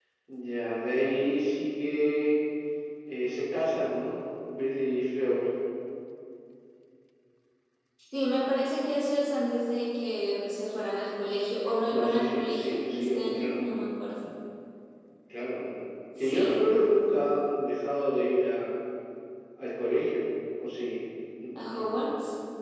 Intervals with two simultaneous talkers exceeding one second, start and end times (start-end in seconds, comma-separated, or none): 12.0-13.6